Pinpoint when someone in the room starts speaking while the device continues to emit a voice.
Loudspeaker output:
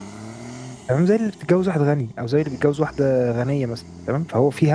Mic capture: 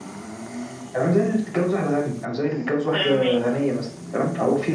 3 s

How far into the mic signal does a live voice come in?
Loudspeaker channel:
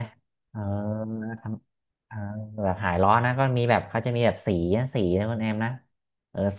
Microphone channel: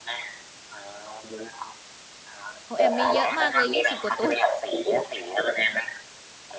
3 s

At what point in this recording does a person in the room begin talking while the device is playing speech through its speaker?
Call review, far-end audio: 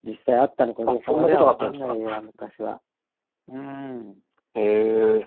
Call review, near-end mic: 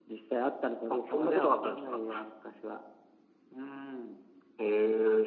none

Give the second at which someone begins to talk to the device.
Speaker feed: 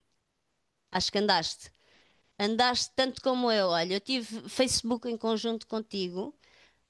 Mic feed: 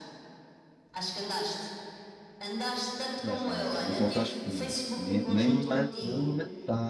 3 s

